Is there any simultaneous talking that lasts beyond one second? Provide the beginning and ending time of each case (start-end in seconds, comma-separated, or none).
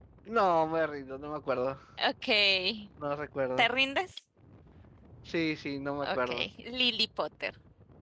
none